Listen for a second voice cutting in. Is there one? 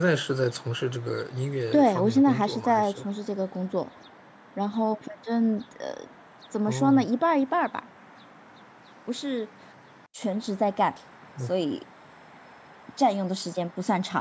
Yes, from 1.7 s

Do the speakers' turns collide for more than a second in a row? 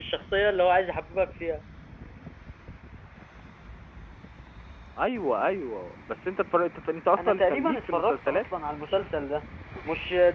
Yes, from 7.2 s

